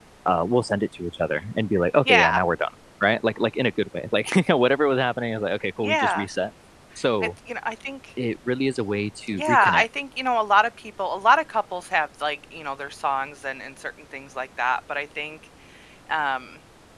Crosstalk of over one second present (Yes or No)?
No